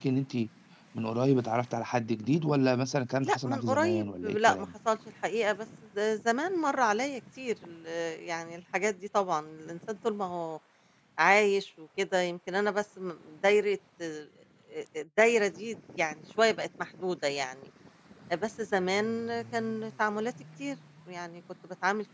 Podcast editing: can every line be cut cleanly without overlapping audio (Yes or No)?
No